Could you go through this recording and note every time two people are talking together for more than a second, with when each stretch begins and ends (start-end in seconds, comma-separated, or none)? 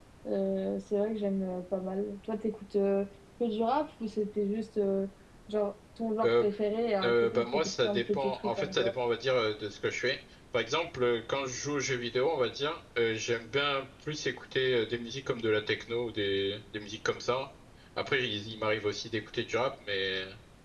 7.0-8.9